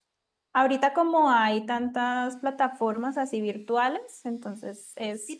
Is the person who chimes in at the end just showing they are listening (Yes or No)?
No